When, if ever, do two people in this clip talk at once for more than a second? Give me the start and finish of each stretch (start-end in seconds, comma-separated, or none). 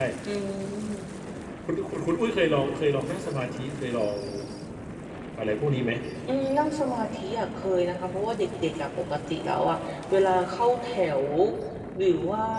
none